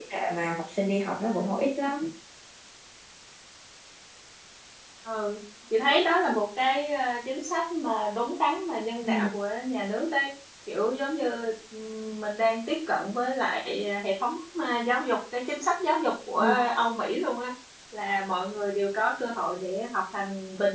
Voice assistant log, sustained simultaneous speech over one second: none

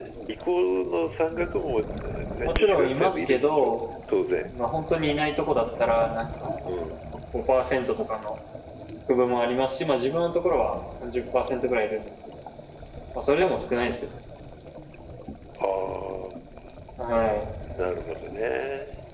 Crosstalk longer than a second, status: present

